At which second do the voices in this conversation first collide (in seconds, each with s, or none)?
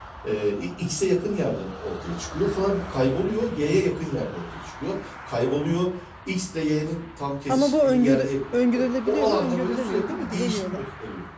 7.5 s